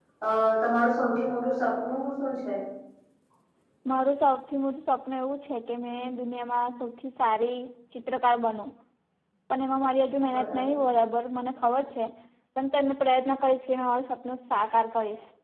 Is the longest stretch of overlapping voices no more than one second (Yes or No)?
Yes